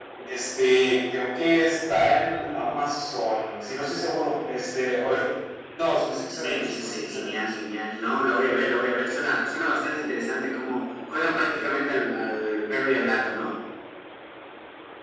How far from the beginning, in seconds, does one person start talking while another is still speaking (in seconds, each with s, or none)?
6.3 s